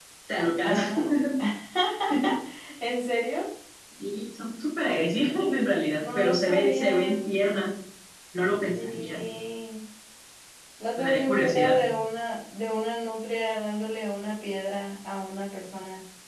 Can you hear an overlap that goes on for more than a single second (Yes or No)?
Yes